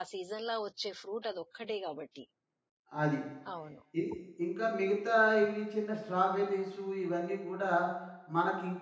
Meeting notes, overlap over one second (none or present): none